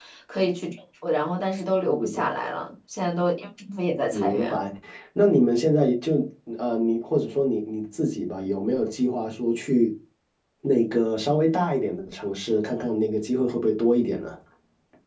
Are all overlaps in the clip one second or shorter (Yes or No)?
Yes